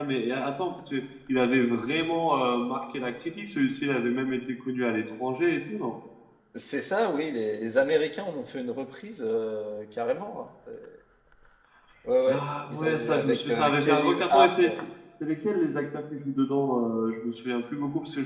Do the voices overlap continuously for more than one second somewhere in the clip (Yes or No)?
Yes